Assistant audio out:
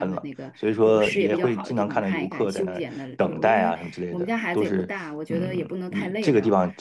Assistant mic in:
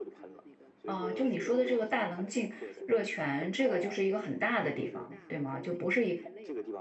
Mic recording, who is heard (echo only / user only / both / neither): both